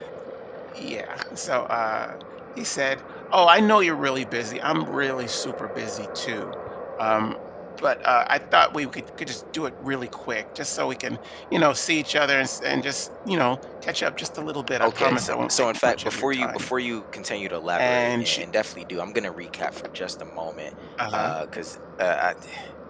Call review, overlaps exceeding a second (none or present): present